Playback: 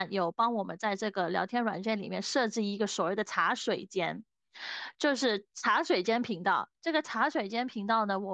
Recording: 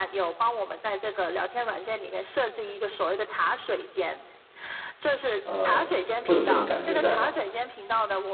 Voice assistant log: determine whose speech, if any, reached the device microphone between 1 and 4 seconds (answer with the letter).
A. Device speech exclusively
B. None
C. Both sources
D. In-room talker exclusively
A